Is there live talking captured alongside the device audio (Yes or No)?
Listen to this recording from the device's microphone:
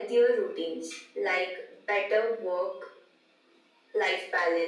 No